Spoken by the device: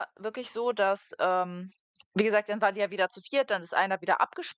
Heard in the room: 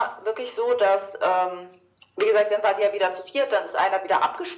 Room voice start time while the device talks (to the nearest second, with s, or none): none